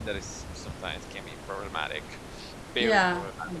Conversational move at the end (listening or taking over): taking over